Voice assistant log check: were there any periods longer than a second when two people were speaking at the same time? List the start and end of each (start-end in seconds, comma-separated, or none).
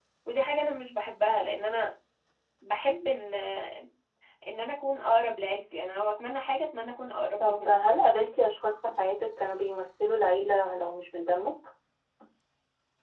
none